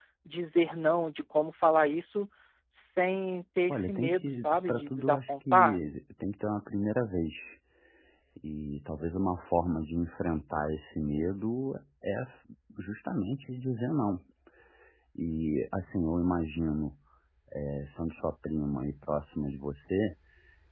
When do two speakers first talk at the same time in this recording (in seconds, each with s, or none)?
3.7 s